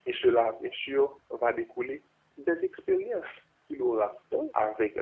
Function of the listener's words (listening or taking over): listening